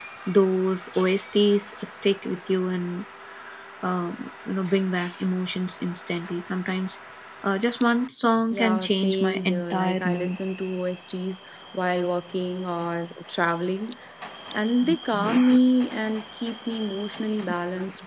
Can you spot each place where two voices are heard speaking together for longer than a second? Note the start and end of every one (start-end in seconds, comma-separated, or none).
8.5-10.4